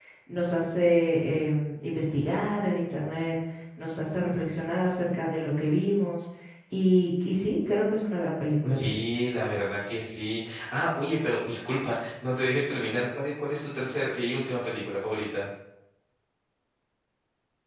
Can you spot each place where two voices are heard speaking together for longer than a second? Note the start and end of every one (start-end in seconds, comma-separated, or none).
none